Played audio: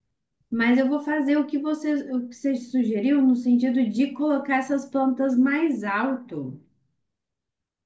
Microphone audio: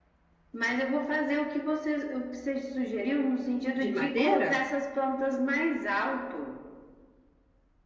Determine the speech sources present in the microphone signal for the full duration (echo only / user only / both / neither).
both